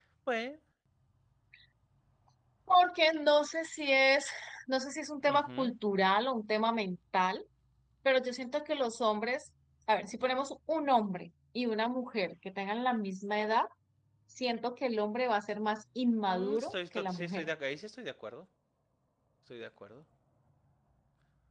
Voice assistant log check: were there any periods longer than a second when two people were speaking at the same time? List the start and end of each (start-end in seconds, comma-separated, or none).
16.2-17.5